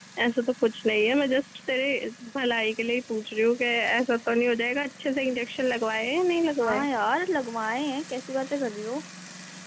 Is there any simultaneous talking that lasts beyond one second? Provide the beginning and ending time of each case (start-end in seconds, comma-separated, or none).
none